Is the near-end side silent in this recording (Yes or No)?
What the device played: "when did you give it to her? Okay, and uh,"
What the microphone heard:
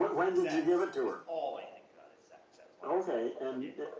No